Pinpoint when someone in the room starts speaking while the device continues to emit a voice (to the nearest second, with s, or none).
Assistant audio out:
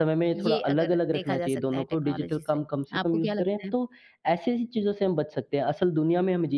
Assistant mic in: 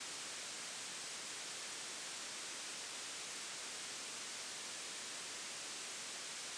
none